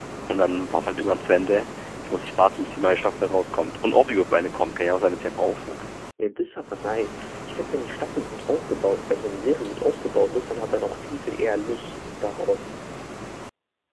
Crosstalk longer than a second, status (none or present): none